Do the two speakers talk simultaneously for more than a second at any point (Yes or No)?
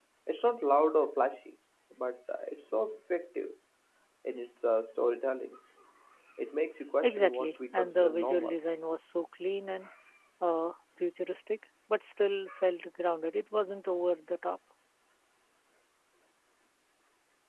Yes